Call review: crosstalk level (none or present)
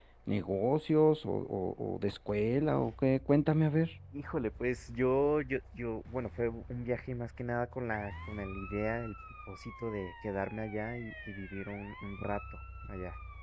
none